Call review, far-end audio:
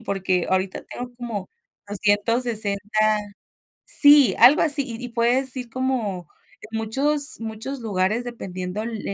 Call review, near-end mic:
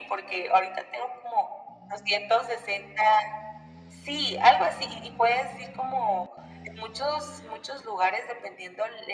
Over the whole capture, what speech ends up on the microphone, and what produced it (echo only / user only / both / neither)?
echo only